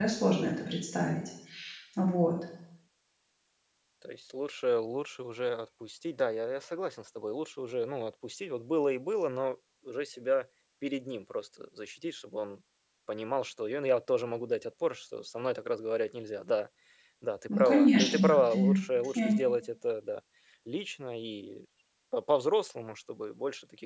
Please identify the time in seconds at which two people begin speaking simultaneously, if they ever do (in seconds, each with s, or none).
17.6 s